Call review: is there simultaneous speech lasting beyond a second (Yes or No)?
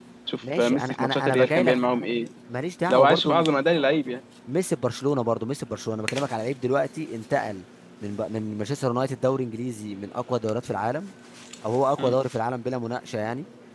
Yes